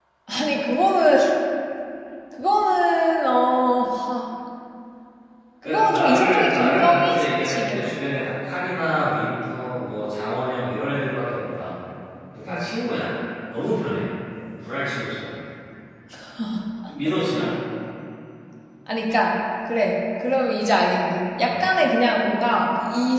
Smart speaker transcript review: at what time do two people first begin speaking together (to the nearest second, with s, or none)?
6 s